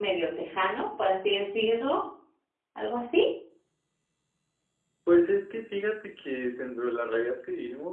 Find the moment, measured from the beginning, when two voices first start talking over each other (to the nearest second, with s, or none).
none